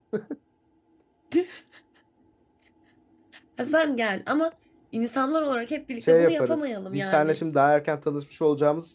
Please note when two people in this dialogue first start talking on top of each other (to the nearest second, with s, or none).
6 s